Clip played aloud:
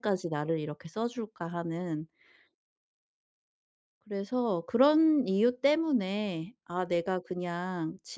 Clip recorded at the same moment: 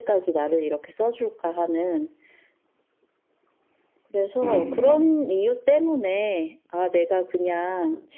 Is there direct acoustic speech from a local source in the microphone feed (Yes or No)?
Yes